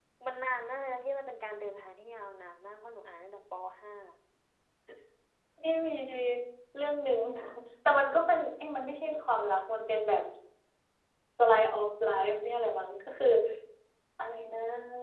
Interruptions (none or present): none